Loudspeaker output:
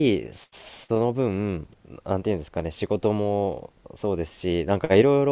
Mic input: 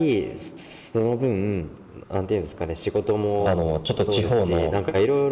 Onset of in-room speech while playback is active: 3.4 s

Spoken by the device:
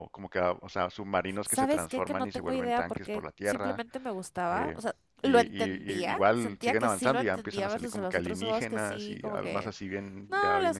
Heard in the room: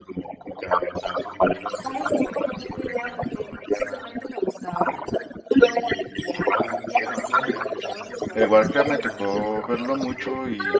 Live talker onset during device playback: 8.3 s

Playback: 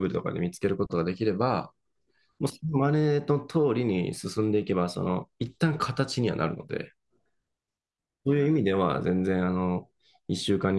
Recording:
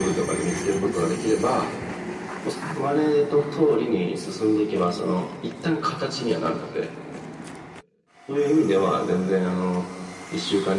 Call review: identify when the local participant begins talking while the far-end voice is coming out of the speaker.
none

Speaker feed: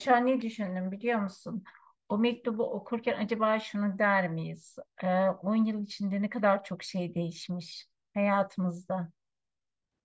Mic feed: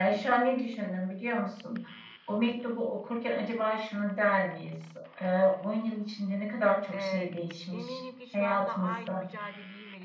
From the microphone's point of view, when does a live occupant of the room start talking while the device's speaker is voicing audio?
6.9 s

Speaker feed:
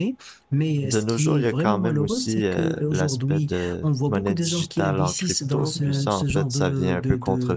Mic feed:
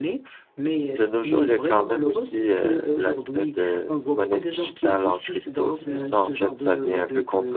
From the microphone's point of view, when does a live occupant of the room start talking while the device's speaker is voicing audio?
none

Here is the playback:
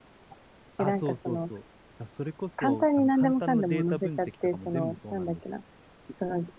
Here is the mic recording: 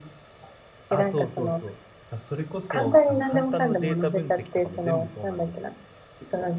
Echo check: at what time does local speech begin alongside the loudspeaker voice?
none

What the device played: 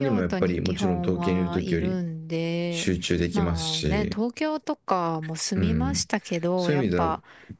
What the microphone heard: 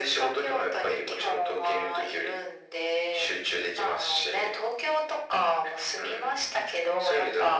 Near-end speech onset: none

